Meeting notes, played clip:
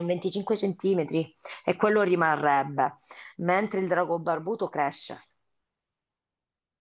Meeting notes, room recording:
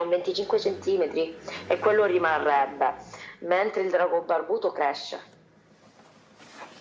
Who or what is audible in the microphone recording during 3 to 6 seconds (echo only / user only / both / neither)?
echo only